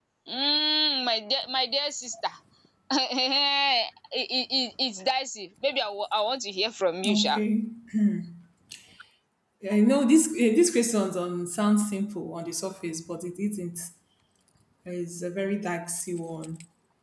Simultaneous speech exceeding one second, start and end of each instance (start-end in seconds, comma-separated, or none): none